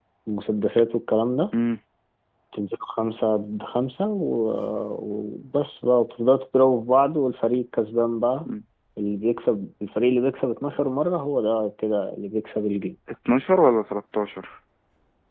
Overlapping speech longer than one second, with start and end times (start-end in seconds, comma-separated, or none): none